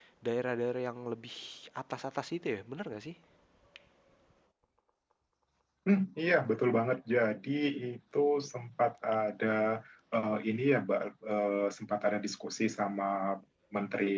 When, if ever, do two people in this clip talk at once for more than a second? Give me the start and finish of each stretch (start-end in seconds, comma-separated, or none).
none